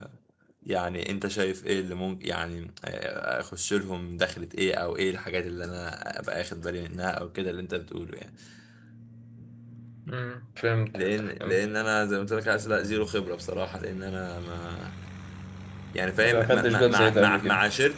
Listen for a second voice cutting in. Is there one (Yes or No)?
Yes